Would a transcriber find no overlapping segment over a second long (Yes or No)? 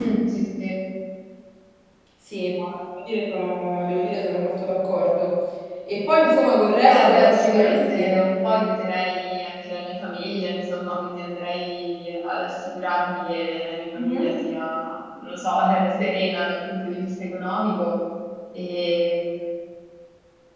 No